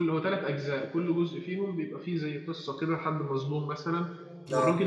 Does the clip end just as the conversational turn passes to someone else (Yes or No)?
No